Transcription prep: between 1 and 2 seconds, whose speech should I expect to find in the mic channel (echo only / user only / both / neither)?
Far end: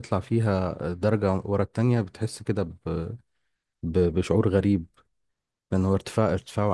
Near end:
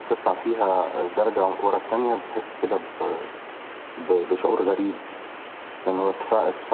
echo only